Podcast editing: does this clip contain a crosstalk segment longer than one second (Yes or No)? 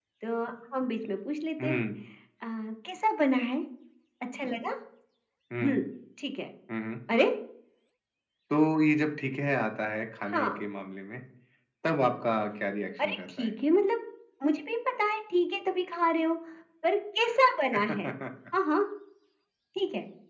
No